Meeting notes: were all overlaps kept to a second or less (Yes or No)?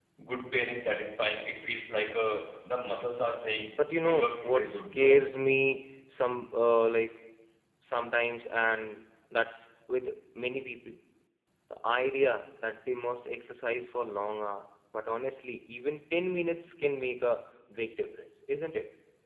No